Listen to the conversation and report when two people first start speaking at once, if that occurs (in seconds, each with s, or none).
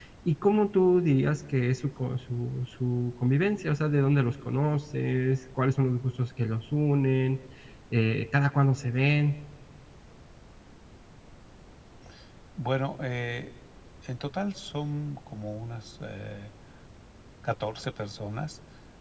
none